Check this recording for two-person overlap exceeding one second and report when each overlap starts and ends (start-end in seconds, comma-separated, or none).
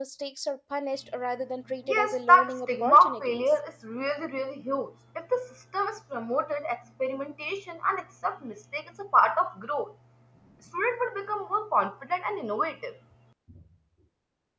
1.9-3.5